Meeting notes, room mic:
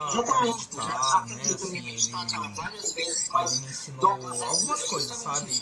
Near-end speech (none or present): present